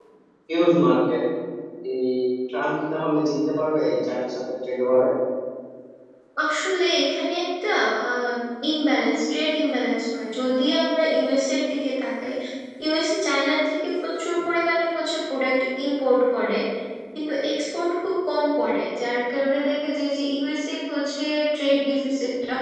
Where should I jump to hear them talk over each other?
none

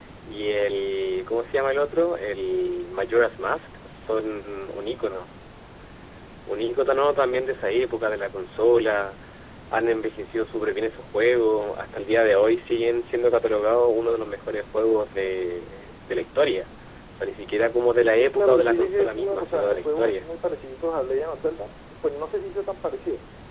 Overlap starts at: 18.1 s

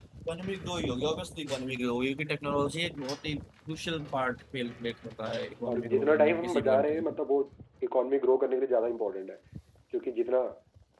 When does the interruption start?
5.7 s

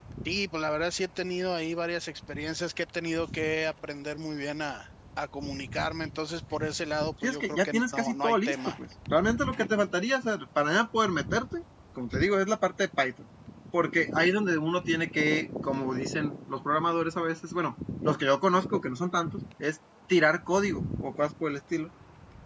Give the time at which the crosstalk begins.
7.2 s

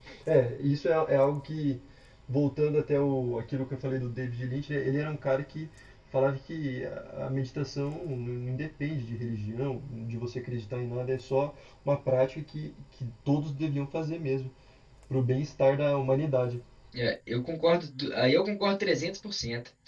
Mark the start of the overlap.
none

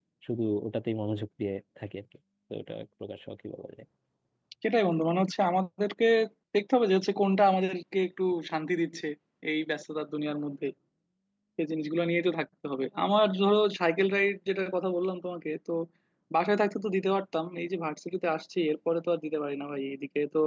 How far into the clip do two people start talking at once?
none

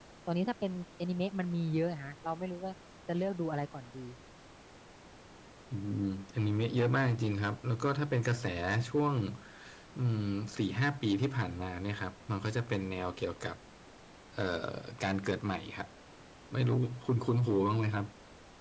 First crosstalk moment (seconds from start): none

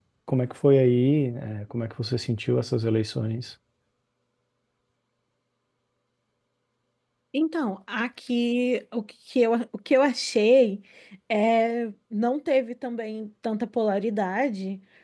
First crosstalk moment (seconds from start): none

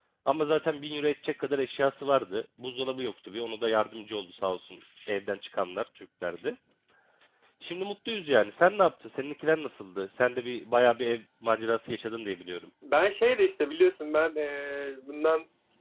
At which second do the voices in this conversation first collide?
none

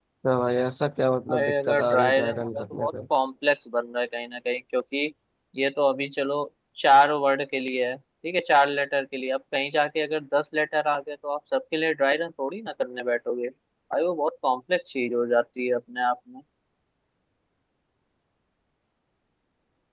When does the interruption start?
1.3 s

